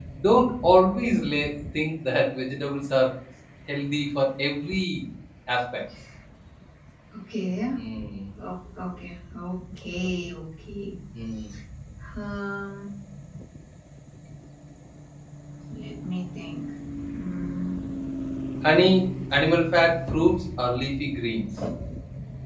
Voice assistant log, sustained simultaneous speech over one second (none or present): none